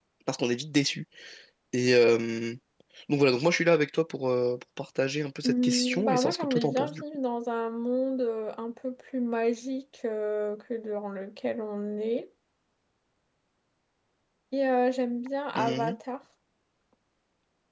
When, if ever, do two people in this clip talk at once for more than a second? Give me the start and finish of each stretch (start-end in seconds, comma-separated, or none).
5.4-7.0